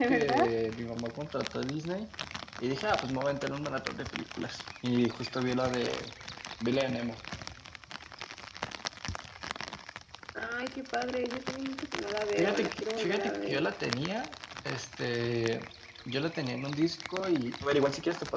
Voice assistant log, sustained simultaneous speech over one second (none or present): present